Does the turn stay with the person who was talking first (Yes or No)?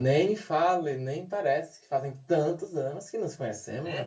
No